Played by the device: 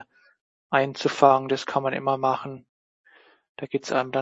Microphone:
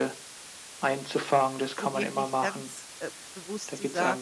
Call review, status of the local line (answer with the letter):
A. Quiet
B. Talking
B